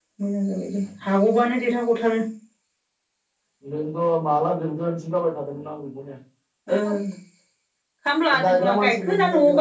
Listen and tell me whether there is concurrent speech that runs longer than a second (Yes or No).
Yes